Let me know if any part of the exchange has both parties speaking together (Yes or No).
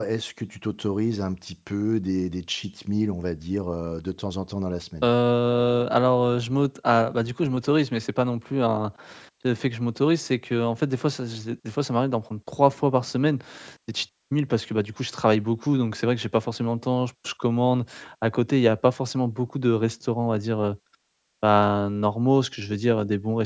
No